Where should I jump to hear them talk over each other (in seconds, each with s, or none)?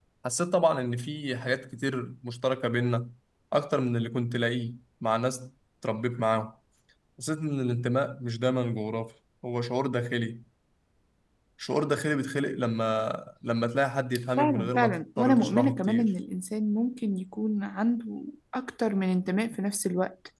14.4 s